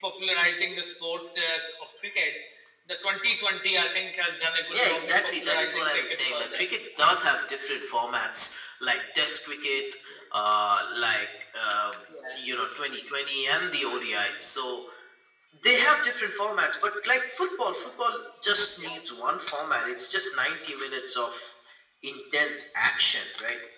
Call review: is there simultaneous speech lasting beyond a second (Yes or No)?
Yes